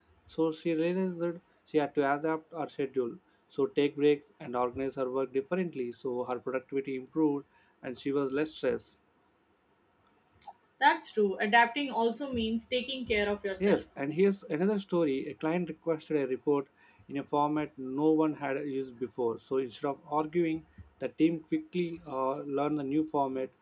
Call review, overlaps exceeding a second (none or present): none